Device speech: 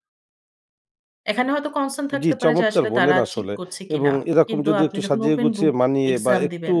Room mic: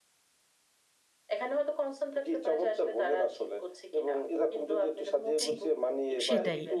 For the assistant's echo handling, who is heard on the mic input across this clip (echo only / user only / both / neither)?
both